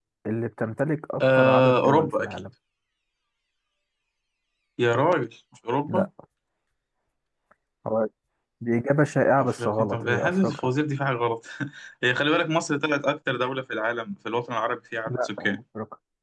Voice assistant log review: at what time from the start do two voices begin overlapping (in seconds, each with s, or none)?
1.2 s